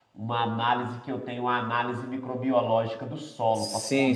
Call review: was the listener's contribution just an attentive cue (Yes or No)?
Yes